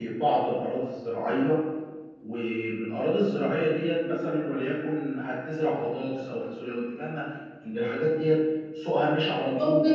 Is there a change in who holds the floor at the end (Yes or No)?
Yes